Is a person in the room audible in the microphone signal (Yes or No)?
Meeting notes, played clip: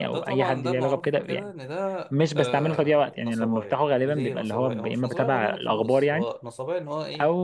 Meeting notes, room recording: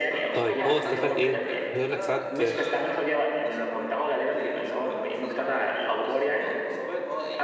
Yes